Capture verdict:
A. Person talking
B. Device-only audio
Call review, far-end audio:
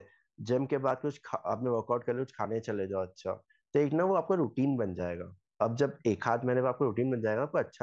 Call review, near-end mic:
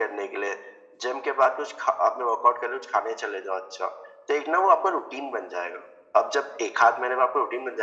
B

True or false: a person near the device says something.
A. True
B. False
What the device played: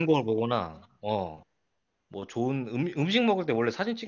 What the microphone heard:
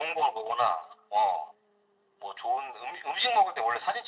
B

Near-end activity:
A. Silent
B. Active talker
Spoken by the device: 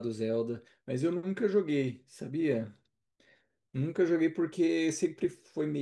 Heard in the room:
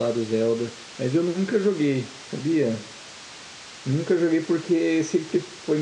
A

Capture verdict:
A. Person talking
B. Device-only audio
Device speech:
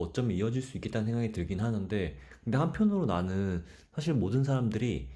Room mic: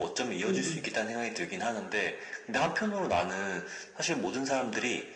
A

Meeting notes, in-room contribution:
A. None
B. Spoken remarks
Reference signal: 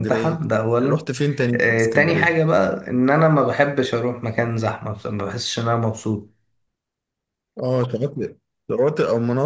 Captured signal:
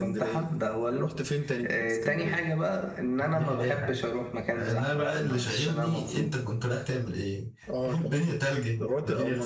B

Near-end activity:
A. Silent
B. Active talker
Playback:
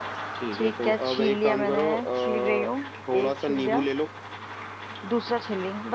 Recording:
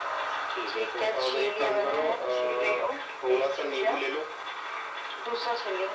A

